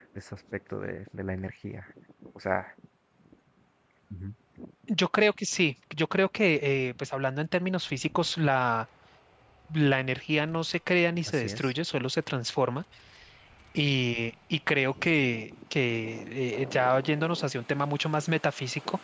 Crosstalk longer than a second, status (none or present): none